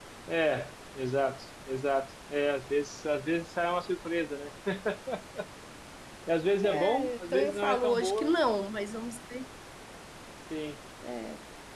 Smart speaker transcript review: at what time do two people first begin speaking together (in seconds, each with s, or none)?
6.6 s